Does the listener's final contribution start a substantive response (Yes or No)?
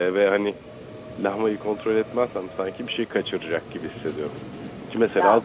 No